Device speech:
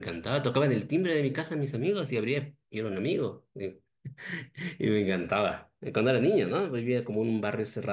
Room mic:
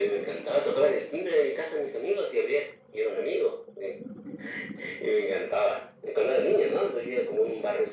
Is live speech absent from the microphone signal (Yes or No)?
Yes